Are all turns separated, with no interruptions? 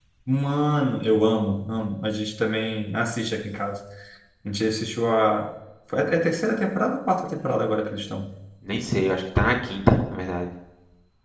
Yes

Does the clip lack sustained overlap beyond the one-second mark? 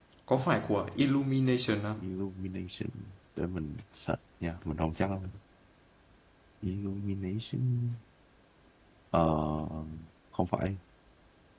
Yes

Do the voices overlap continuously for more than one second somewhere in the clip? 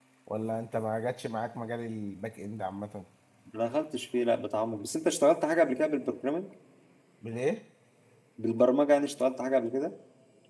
No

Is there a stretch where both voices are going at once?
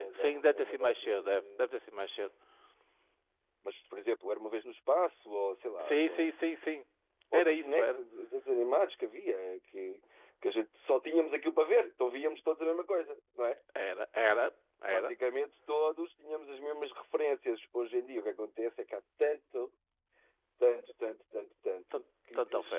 Yes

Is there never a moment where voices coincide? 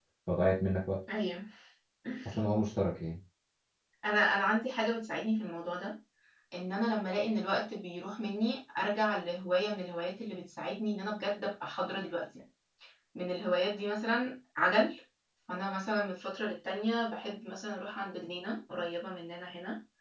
Yes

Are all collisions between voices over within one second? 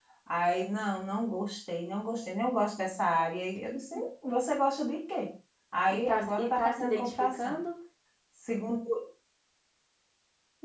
No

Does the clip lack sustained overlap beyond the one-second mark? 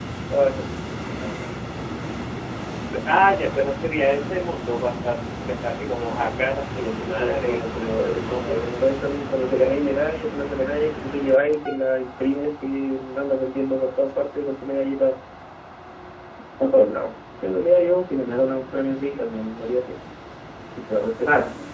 No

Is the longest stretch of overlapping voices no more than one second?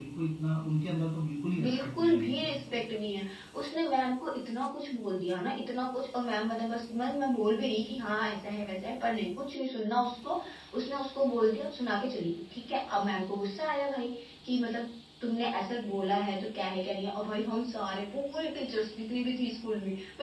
No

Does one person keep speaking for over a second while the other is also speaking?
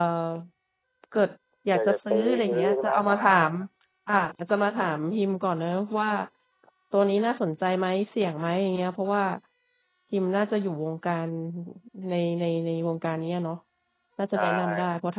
Yes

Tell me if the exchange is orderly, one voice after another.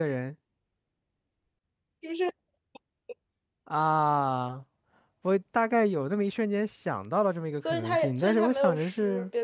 No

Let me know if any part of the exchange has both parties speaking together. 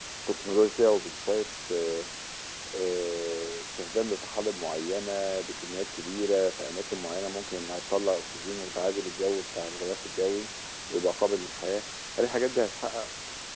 No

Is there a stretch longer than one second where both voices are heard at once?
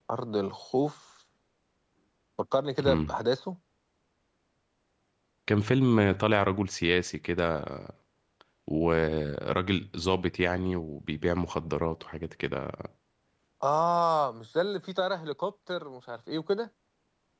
No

